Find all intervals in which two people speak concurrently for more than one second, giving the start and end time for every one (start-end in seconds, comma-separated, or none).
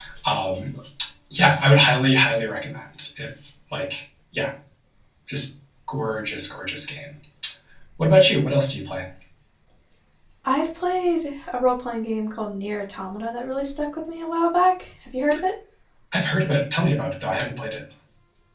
none